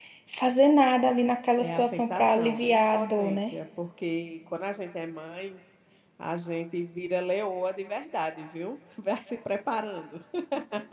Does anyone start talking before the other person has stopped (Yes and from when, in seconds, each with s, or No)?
Yes, from 1.6 s